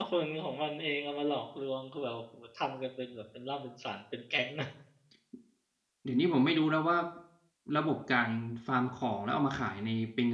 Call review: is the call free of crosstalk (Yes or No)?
Yes